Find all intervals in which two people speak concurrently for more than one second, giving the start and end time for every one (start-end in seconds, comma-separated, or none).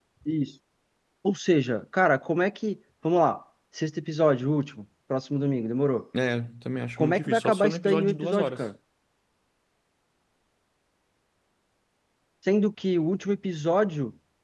7.0-8.6